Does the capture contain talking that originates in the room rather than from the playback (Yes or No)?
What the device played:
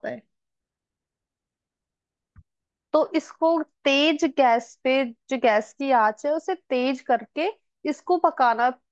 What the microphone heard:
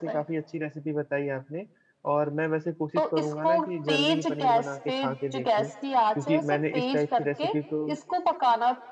Yes